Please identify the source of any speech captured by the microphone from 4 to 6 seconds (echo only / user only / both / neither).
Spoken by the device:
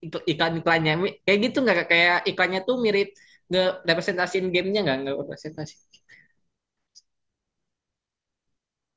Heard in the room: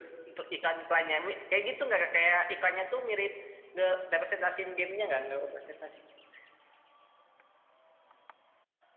echo only